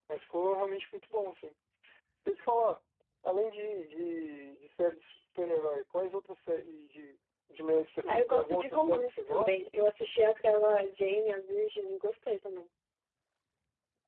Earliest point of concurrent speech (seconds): 8.0 s

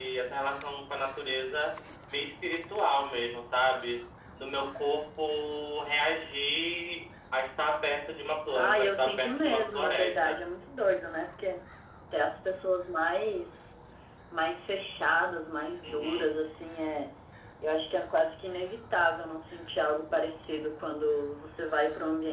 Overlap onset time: 8.5 s

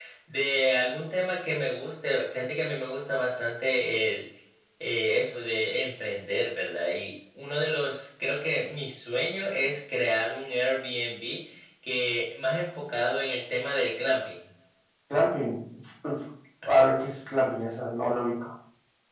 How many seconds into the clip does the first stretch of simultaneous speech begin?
none

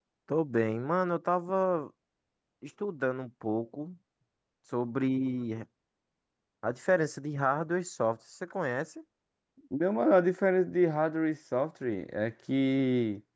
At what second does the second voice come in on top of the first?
none

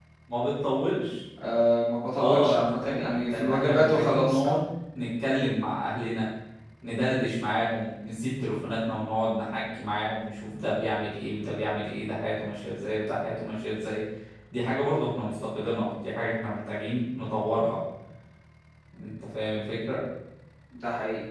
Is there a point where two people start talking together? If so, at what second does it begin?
2.1 s

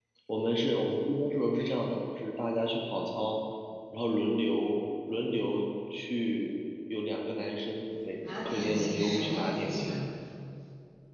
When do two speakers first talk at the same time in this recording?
8.2 s

